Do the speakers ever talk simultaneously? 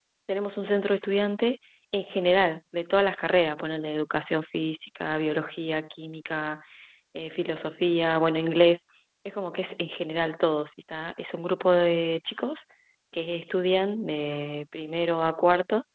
No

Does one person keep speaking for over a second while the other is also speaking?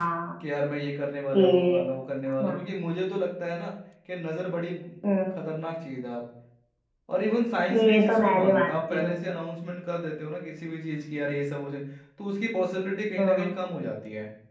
Yes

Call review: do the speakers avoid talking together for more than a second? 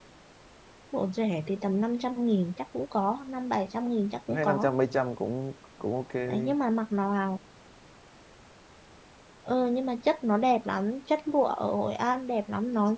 Yes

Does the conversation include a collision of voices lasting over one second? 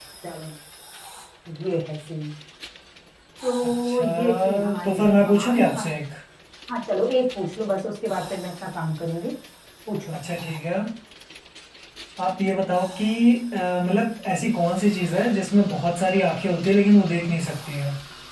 Yes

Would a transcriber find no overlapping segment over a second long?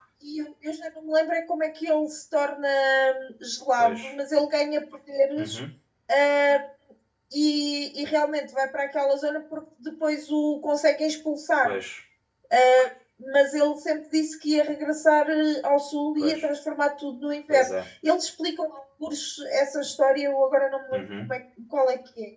Yes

